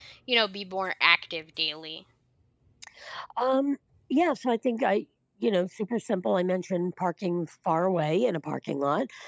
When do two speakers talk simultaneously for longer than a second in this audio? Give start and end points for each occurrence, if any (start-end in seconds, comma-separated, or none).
none